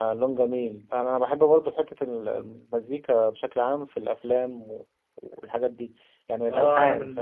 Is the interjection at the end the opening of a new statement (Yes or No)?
Yes